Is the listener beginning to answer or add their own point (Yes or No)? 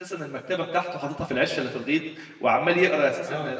No